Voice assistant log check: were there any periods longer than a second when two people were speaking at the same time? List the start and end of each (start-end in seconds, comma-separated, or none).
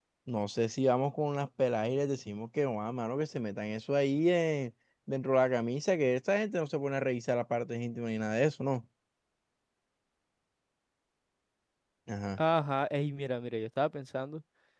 none